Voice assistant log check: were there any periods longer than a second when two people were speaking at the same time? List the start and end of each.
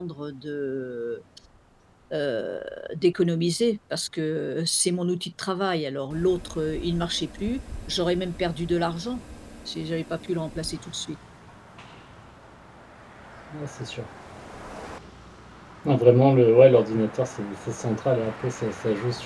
none

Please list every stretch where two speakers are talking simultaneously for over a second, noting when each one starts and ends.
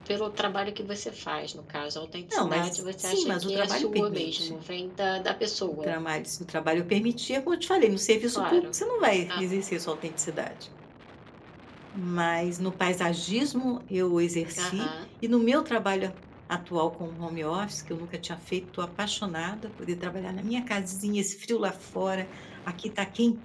2.3-4.6

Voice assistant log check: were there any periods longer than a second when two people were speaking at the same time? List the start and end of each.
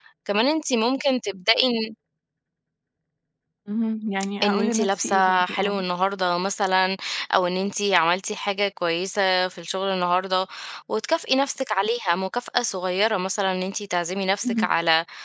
4.4-5.8

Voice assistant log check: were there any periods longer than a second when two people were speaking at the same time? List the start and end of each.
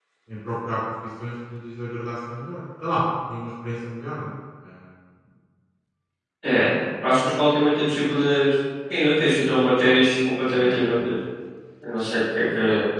none

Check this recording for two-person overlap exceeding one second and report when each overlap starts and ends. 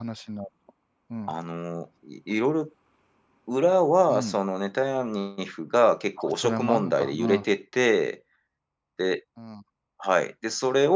6.2-7.4

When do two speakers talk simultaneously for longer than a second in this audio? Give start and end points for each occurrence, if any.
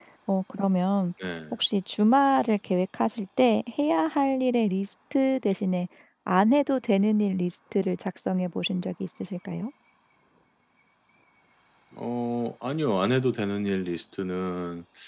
none

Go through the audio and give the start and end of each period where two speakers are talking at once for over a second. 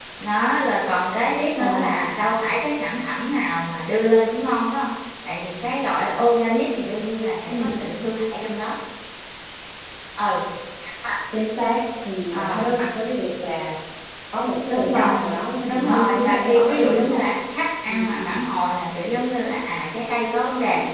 15.7-17.2

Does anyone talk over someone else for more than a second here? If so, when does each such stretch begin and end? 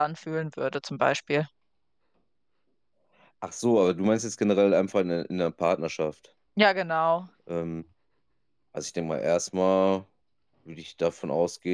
none

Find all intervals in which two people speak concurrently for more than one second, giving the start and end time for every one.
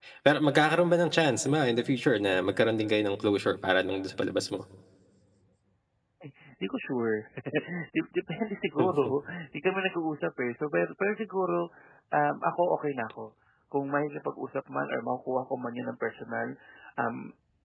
none

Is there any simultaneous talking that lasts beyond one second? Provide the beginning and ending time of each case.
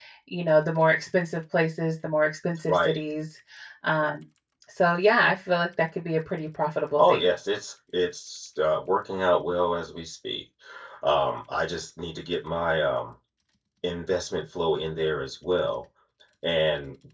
none

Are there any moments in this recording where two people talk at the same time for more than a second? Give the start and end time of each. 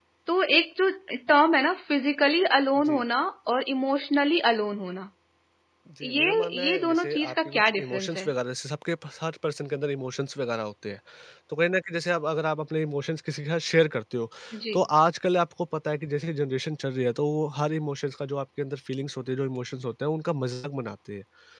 6.0-8.2

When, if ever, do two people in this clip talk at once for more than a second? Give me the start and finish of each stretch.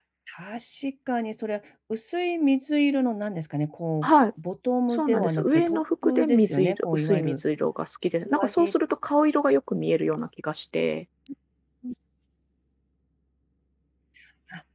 4.9-7.4

